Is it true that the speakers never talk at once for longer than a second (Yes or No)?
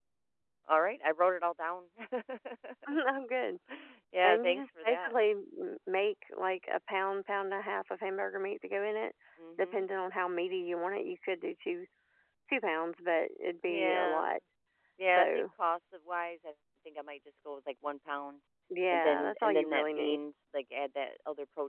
No